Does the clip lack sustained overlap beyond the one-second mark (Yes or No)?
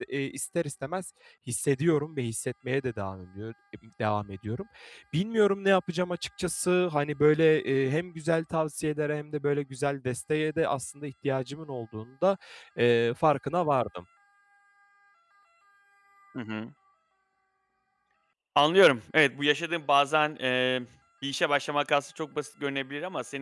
Yes